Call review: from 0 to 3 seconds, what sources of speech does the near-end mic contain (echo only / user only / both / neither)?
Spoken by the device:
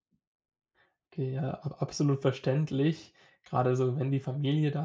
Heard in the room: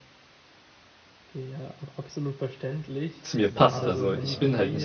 echo only